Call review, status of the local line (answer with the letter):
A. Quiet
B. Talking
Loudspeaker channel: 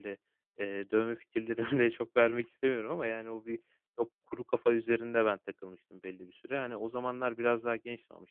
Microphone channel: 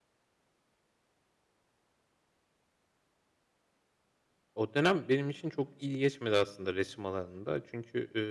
B